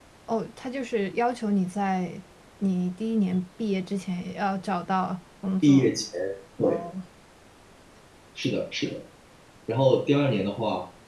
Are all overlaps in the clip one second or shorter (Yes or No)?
Yes